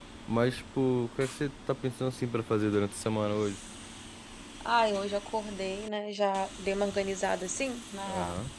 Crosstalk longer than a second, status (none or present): none